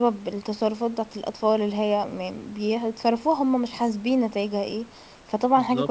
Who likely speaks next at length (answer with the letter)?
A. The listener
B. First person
B